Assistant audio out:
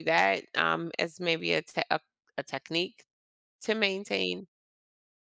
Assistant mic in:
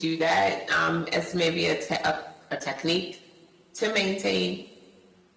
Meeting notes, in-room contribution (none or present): none